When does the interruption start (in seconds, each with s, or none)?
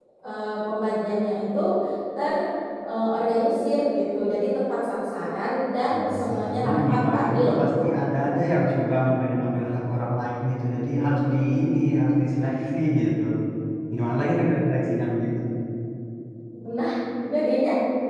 5.9 s